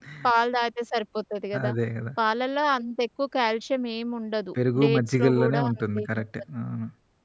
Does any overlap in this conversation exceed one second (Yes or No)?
Yes